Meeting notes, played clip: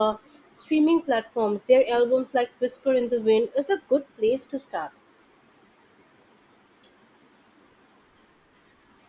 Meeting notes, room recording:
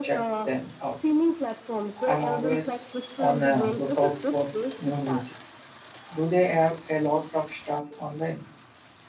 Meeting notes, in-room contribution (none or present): present